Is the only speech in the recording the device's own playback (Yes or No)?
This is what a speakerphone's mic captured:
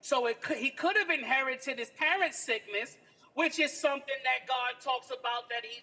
Yes